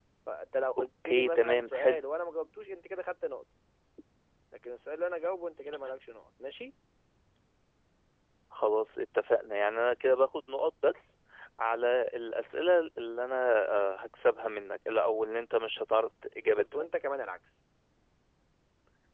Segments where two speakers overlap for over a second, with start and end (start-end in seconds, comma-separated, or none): 0.8-2.0